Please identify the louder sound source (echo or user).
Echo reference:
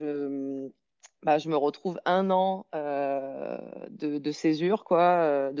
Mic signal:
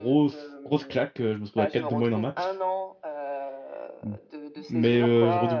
user